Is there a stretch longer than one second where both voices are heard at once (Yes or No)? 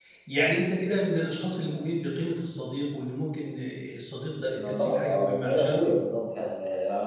Yes